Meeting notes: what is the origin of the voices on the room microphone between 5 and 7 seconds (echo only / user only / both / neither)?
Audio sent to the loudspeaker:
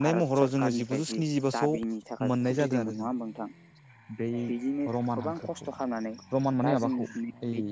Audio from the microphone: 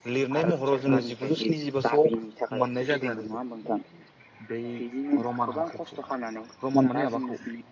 echo only